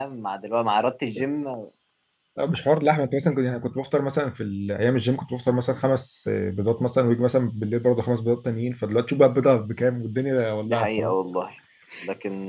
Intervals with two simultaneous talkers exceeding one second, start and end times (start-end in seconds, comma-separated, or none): none